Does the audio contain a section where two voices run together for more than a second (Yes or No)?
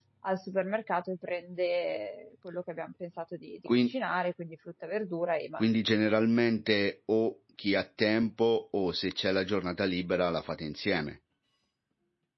No